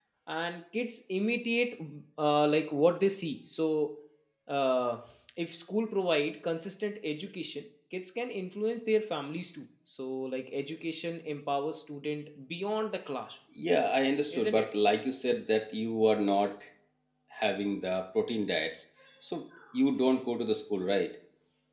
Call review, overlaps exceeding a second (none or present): none